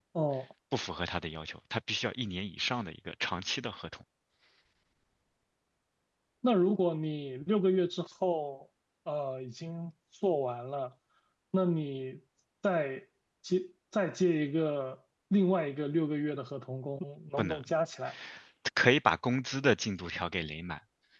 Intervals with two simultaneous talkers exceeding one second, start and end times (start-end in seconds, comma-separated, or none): none